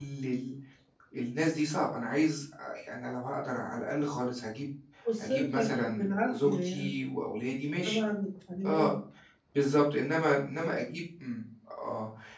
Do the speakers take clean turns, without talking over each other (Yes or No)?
No